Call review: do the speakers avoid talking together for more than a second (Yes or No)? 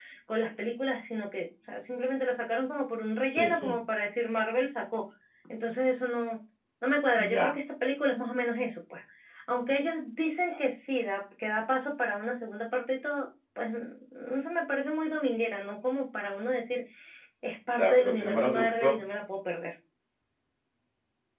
No